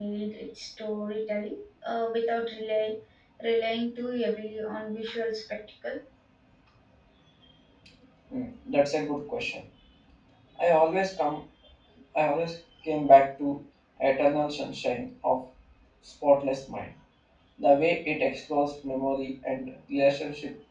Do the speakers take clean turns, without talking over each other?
Yes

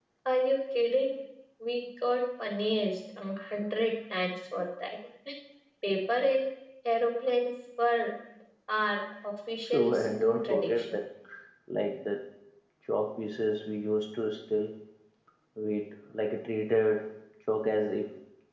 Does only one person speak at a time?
No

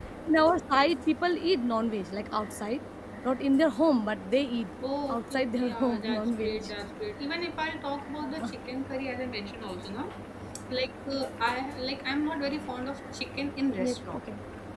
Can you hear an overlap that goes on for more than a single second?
Yes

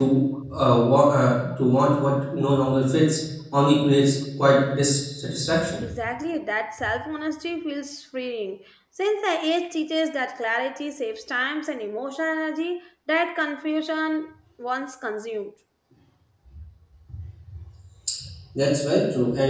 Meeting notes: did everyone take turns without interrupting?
Yes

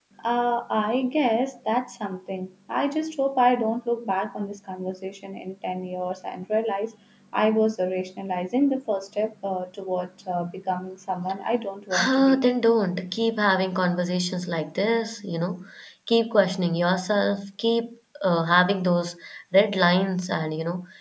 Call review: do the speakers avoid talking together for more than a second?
Yes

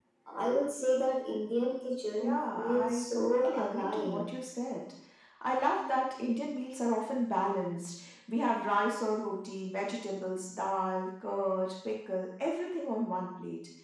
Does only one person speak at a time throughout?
No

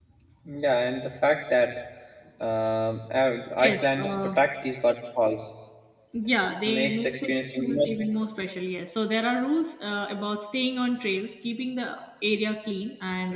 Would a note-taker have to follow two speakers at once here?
Yes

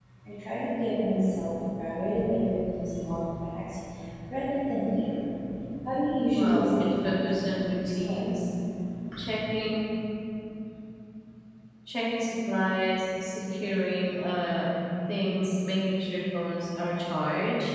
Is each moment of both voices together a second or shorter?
No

